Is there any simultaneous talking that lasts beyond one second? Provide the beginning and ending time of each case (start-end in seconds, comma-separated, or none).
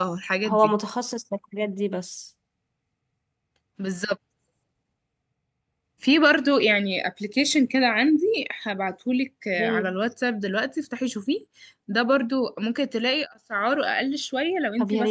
none